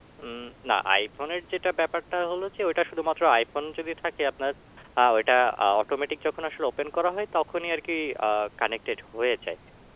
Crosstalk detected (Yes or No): No